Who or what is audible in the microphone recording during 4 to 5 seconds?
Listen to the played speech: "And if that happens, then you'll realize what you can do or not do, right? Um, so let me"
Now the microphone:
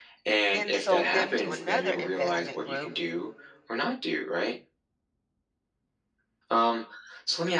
echo only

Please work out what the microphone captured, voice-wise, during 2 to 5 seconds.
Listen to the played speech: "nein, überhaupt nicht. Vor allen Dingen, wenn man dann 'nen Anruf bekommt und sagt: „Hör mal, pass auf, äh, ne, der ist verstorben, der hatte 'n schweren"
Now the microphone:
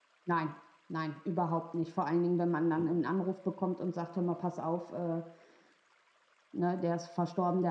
echo only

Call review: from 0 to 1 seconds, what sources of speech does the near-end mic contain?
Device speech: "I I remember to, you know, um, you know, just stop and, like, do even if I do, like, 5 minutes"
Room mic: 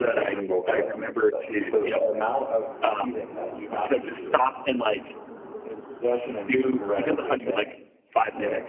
both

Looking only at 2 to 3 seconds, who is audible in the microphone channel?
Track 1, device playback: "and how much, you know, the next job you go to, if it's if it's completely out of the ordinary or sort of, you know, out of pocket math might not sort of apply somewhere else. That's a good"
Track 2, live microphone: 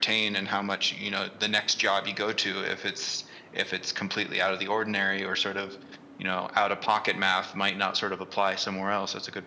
echo only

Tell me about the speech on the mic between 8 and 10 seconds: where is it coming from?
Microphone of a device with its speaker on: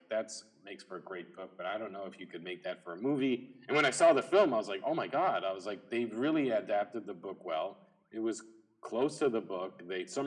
echo only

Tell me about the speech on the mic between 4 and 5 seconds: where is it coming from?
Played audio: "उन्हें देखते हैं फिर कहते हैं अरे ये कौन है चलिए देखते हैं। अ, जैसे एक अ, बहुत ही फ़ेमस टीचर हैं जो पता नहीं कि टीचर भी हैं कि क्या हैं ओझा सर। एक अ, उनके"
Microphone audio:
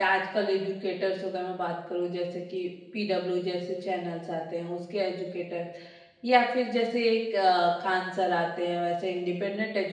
user only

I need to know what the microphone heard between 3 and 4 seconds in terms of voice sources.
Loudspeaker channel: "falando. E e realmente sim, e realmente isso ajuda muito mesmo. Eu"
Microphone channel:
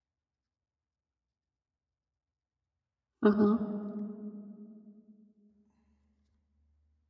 user only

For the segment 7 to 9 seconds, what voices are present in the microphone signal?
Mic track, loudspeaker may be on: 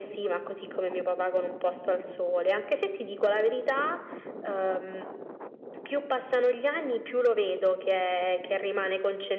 echo only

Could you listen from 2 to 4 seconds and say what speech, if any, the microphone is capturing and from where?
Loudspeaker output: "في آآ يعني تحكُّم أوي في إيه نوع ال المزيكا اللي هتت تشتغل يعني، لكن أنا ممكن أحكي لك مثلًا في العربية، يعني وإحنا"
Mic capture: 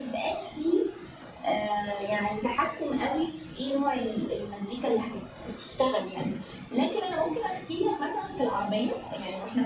echo only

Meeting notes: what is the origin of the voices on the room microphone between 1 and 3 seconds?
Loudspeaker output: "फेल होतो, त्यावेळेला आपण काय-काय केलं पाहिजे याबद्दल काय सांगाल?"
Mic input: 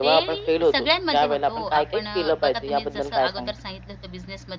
both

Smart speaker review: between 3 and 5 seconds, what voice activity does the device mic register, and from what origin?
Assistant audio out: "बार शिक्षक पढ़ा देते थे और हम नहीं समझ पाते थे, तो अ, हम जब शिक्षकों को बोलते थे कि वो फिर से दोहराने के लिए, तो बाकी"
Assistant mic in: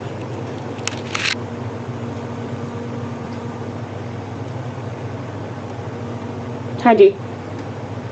neither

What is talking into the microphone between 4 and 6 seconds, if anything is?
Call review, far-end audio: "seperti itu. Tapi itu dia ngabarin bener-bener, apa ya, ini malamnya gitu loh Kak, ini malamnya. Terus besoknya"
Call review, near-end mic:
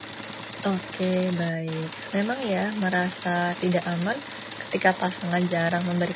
user only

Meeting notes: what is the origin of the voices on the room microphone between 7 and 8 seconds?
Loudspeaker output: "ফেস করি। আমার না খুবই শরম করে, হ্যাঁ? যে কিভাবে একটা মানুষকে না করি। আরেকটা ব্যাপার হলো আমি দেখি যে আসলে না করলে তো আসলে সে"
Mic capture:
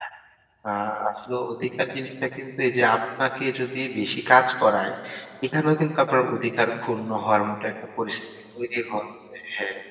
user only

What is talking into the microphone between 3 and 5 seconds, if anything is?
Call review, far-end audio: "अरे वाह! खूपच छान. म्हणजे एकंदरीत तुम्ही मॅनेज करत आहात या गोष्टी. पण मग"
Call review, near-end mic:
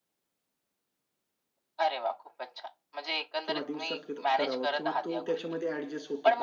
both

